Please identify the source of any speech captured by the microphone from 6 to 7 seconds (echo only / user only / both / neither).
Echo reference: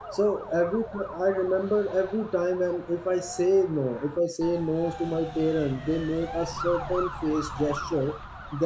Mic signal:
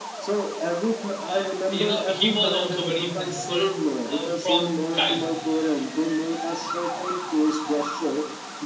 echo only